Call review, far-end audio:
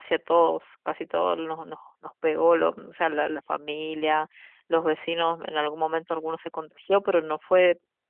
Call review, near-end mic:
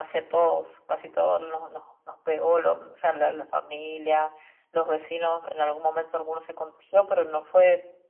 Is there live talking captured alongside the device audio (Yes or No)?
No